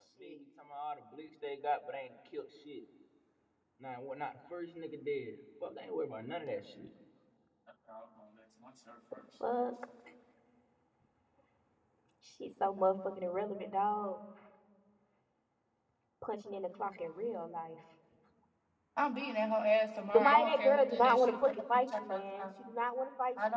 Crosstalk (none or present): present